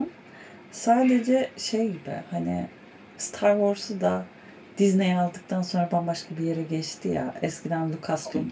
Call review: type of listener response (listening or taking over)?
listening